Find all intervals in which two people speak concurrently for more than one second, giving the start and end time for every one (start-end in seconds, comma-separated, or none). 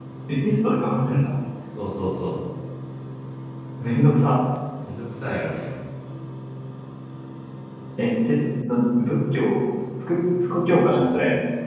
none